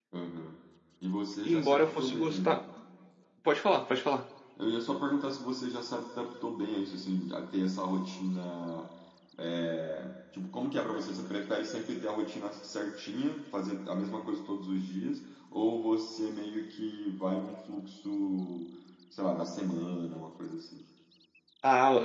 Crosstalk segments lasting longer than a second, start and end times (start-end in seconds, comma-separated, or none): 1.4-2.6